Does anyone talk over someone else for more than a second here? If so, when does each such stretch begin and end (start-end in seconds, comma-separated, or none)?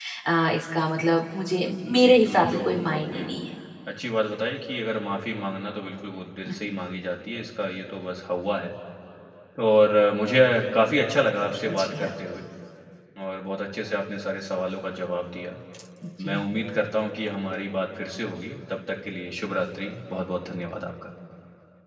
1.9-3.2